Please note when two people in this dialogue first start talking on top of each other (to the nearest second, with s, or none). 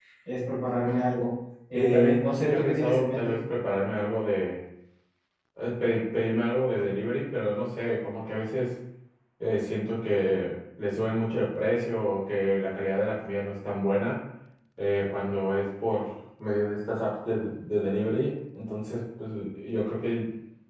2 s